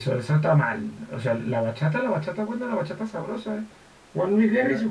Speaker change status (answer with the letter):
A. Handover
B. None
B